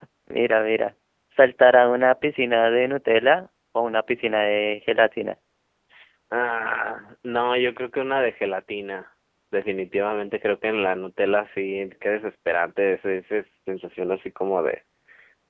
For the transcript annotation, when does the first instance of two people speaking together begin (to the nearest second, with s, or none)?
none